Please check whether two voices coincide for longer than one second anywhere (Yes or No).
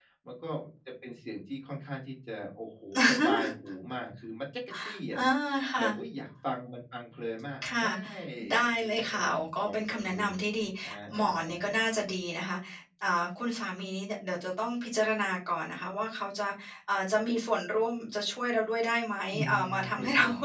Yes